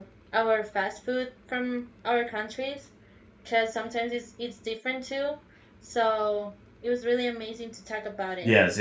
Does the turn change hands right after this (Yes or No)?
Yes